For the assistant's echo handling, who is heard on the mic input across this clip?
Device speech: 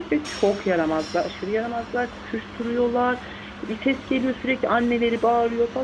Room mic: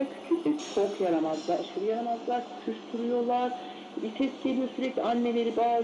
echo only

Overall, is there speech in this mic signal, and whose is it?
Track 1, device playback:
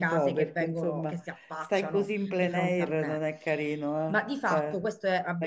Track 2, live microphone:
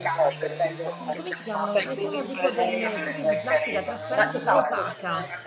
both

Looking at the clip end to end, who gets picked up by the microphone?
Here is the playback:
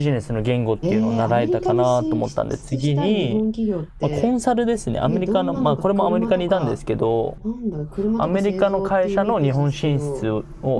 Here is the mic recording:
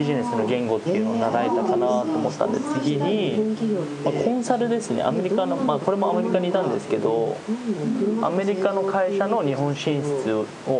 both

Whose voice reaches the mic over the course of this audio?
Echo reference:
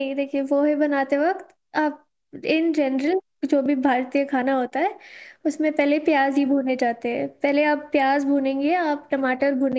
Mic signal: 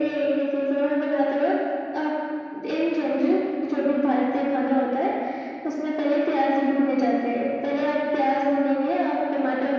echo only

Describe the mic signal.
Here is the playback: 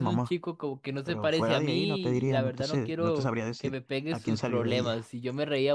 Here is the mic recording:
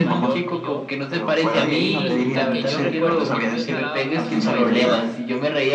both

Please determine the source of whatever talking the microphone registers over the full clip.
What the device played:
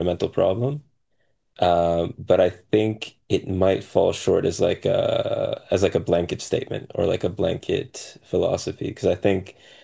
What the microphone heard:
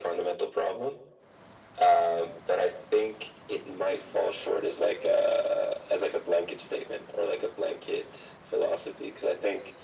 echo only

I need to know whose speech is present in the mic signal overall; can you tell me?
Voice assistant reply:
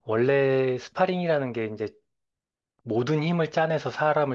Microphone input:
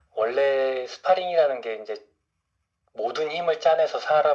echo only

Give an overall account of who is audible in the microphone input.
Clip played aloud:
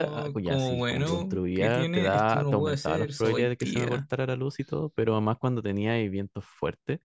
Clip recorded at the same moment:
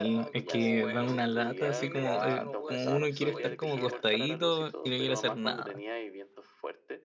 both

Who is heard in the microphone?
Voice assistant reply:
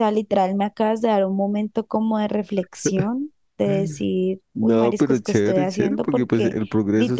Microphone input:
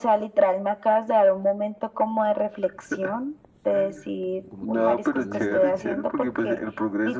both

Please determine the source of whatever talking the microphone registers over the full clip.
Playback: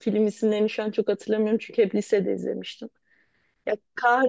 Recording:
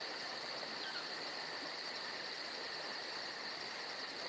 neither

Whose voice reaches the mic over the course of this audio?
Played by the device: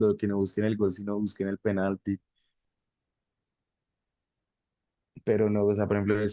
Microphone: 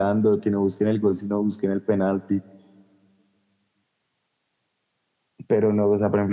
echo only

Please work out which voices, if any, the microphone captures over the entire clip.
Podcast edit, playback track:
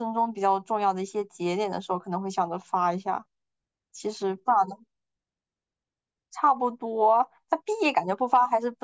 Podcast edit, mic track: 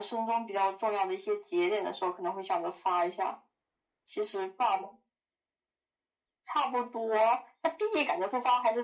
echo only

